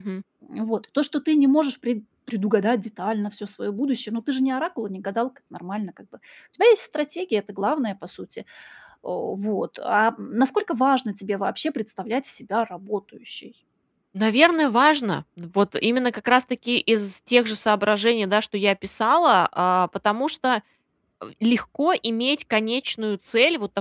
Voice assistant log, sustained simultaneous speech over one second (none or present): none